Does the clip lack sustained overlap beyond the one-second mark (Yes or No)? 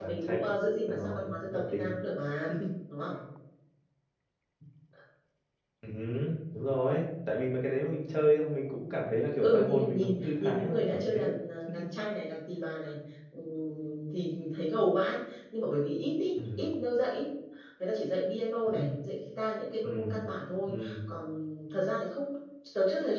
No